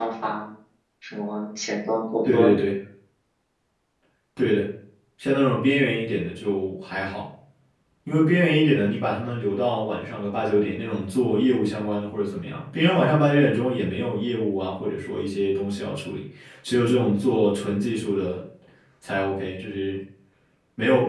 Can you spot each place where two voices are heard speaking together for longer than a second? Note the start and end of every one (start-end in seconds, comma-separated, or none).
none